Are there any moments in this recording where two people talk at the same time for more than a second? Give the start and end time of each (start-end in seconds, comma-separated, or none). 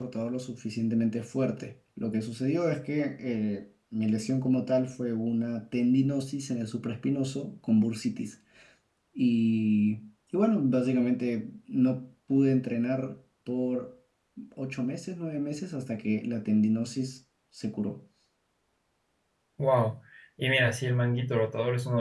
none